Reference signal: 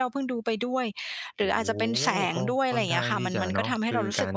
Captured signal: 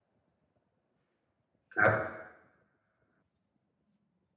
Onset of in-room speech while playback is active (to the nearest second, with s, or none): 2 s